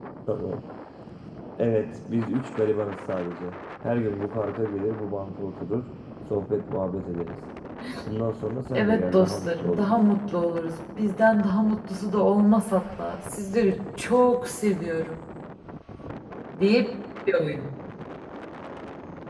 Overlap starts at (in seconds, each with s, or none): 8.7 s